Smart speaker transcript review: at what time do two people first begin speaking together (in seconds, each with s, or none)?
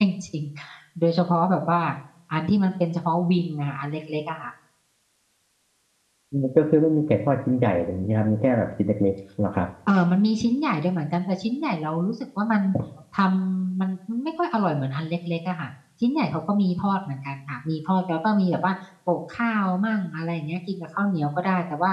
none